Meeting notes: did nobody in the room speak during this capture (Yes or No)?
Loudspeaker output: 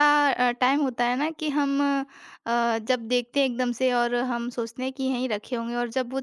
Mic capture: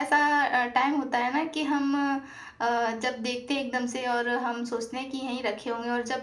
Yes